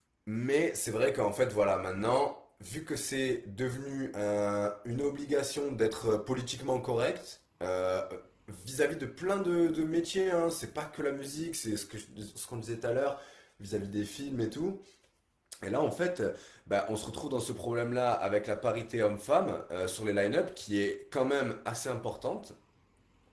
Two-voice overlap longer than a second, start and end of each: none

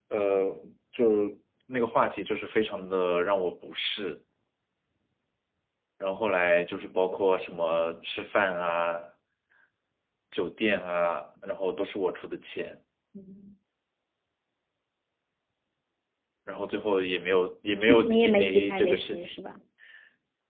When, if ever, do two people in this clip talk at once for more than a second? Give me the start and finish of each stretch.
17.8-19.3

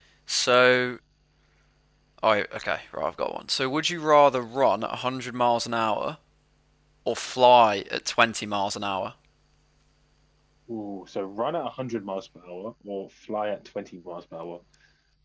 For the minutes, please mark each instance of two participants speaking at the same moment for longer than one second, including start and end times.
none

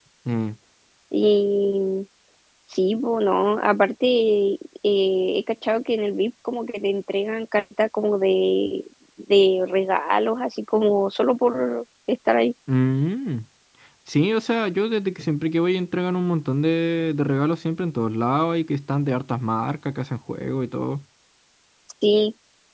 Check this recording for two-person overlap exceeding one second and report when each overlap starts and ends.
none

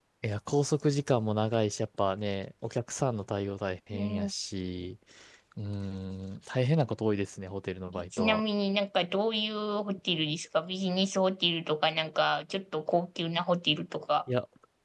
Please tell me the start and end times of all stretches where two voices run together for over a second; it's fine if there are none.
none

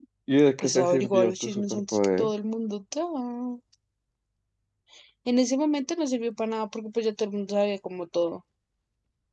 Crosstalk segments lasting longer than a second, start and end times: 0.6-2.3

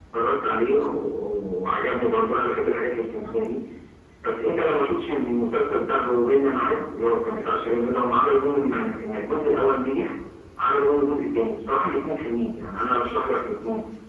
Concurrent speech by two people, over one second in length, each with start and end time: none

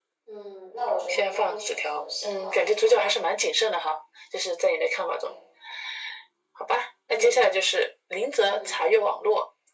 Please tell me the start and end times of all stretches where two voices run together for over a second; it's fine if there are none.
1.1-3.1

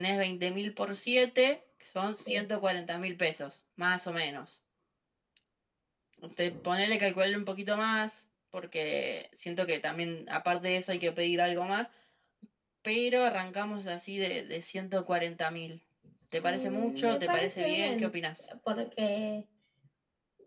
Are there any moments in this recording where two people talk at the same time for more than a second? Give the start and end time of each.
16.4-18.1

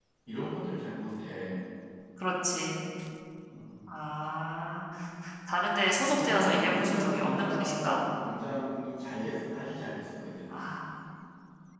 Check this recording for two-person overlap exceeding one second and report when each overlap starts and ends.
6.2-8.0

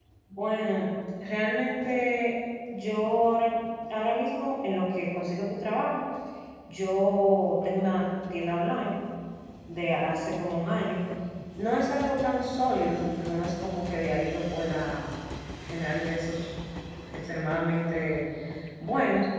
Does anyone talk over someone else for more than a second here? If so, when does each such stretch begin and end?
none

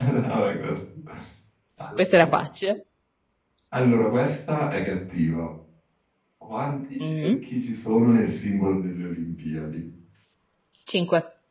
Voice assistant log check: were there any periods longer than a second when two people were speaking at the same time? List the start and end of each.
none

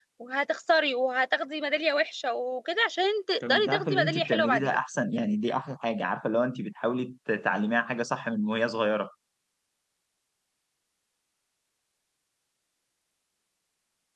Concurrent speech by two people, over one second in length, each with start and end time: 3.5-4.8

